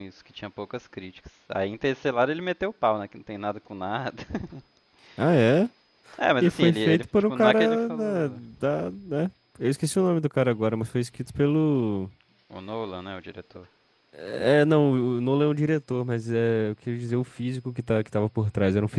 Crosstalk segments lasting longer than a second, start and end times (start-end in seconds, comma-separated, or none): 6.4-8.4